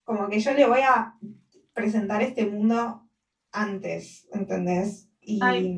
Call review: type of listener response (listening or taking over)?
taking over